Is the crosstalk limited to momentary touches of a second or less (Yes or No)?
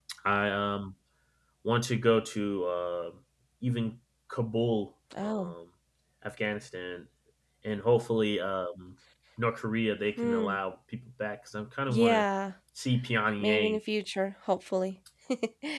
Yes